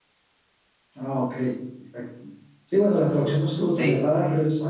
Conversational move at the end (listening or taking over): listening